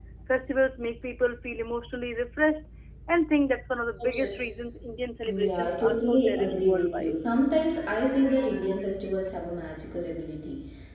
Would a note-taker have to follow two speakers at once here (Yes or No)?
Yes